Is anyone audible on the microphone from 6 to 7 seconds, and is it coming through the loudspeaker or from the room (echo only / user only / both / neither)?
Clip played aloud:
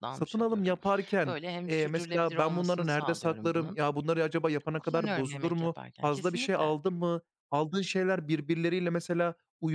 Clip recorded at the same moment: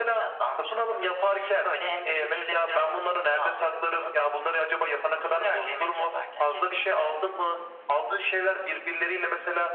echo only